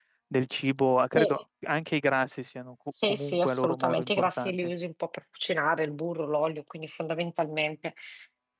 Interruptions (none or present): present